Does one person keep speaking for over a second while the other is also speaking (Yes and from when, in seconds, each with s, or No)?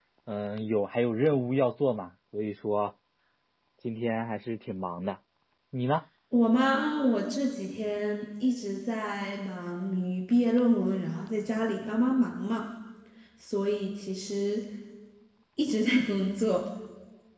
No